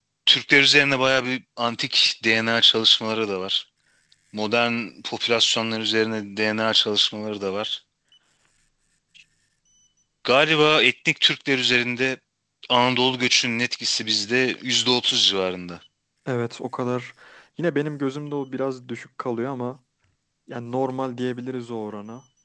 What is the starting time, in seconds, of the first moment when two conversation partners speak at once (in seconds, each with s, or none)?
none